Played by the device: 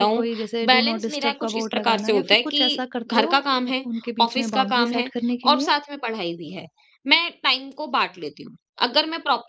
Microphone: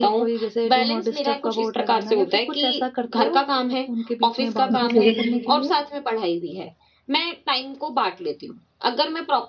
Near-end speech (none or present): present